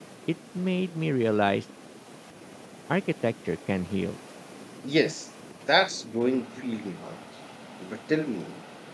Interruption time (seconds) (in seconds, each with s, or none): none